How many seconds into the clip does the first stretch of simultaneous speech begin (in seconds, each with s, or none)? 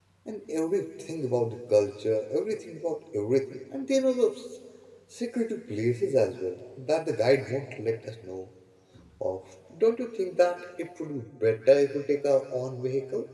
none